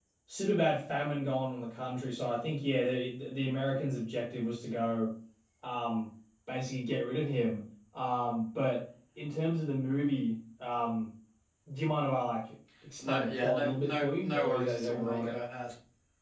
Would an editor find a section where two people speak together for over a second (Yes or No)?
Yes